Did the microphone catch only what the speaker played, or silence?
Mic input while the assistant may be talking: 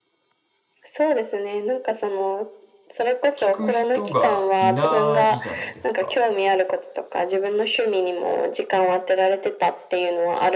No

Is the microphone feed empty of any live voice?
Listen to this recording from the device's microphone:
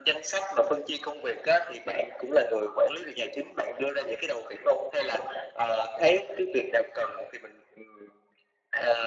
Yes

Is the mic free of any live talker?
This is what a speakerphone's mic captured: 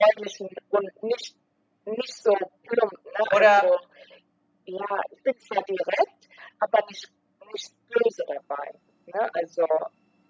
No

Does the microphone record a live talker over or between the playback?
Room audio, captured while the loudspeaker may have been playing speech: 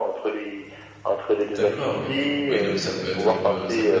Yes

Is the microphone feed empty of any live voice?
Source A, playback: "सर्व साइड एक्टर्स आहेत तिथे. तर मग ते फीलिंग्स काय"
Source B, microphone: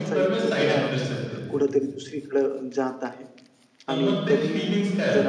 No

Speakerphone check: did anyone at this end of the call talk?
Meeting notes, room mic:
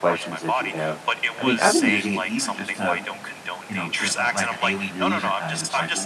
Yes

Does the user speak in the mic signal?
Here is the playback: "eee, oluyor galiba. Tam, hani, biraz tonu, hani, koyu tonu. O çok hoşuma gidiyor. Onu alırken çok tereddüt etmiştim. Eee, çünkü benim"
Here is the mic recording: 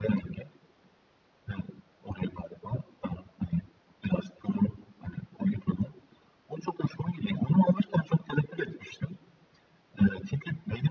No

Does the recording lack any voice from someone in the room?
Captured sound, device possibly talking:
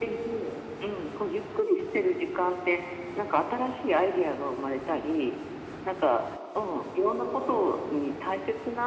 Yes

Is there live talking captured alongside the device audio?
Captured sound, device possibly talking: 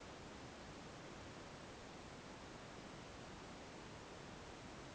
No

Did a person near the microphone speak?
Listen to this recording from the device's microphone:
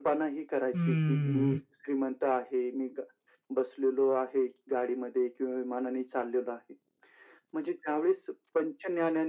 Yes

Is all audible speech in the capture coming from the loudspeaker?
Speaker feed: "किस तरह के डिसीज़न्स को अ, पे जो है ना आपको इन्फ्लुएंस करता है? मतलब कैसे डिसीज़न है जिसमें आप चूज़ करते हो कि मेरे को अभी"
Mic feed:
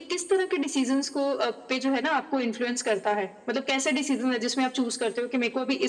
Yes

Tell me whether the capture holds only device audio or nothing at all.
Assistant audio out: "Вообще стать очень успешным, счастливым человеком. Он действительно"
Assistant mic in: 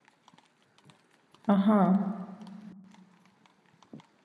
No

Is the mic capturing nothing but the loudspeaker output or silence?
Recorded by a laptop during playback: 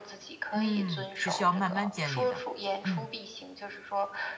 No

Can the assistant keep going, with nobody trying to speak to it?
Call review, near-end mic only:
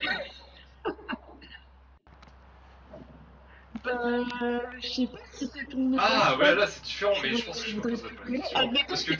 No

